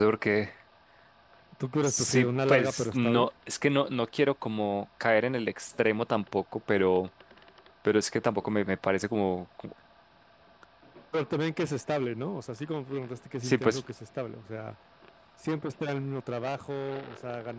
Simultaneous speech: Yes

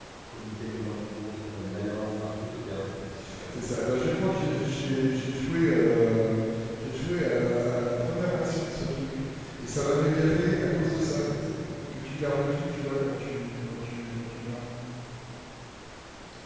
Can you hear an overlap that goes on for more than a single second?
No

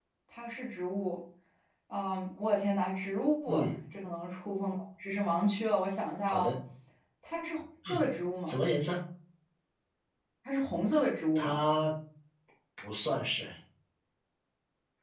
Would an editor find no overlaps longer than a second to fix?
Yes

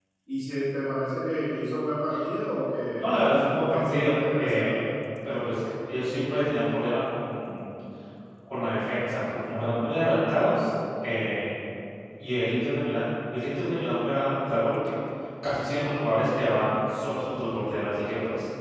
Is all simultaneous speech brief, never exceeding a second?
No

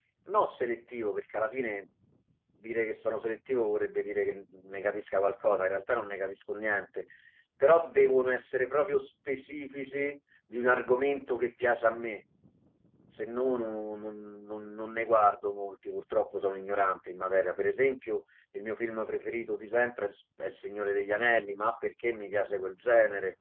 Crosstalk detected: No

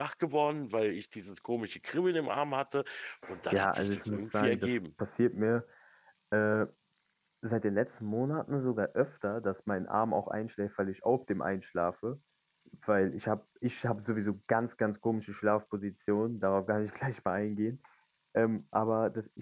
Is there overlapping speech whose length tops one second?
Yes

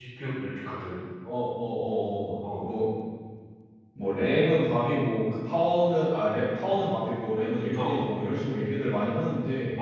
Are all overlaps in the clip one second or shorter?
Yes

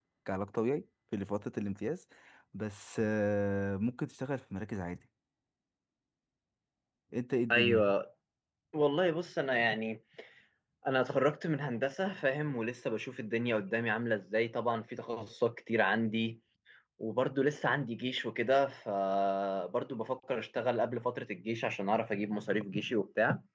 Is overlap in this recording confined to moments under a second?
Yes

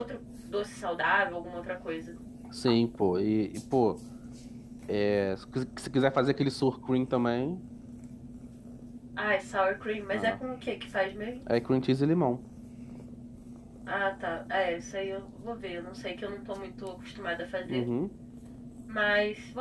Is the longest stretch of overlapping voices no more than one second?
Yes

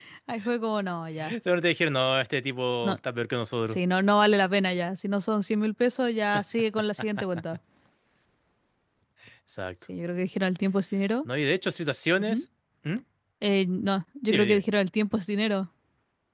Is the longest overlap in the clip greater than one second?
No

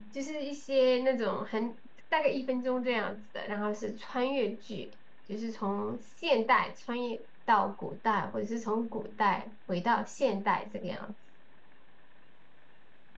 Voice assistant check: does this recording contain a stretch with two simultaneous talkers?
No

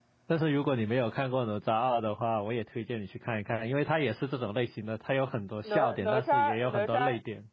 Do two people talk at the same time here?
Yes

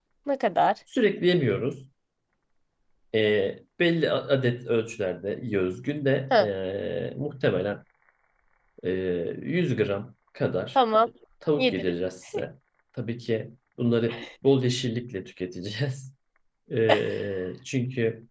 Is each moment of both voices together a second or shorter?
Yes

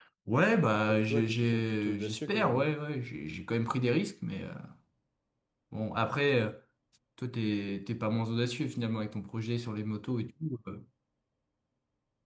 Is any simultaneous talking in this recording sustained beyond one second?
Yes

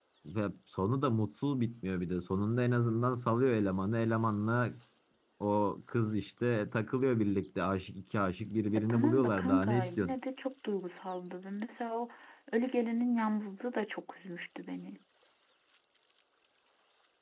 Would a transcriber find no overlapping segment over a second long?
No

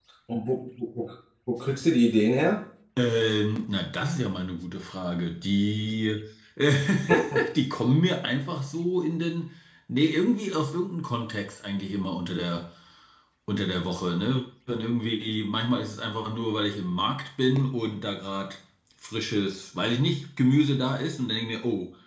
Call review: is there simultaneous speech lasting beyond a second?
No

